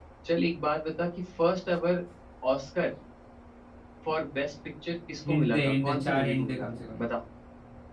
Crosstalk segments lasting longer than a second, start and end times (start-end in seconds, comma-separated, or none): 5.3-7.0